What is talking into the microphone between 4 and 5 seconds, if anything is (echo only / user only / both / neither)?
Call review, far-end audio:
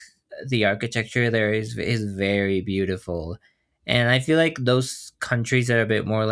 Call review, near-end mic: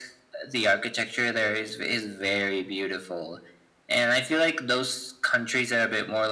echo only